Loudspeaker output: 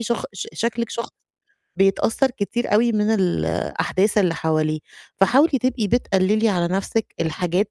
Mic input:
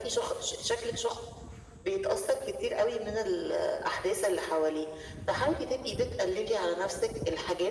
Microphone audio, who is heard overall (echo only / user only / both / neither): echo only